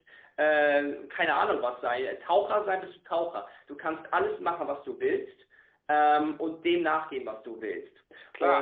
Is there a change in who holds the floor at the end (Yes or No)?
Yes